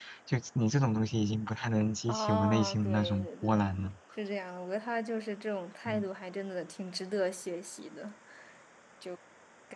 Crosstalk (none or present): present